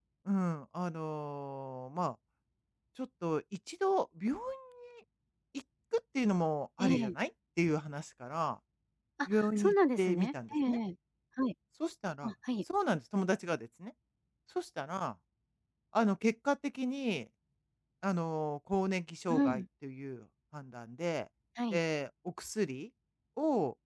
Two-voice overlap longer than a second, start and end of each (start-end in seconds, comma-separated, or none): 9.3-10.8